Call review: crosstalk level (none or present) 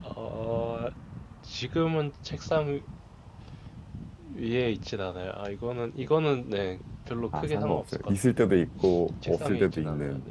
present